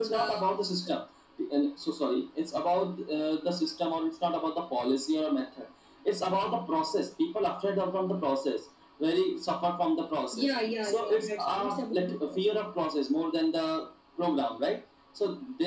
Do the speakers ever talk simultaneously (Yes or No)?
Yes